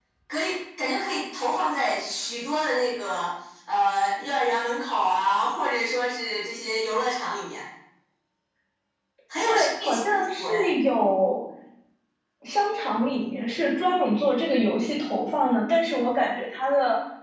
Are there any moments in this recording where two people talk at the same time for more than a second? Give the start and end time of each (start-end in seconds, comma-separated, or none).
9.5-10.7